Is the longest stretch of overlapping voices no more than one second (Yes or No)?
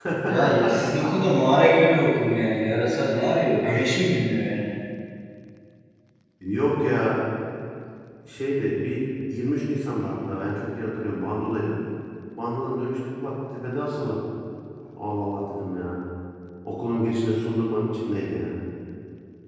Yes